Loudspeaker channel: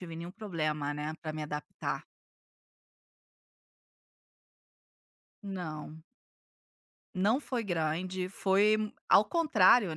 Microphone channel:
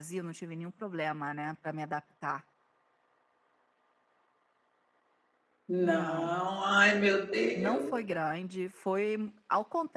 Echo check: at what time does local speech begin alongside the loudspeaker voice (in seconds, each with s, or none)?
5.7 s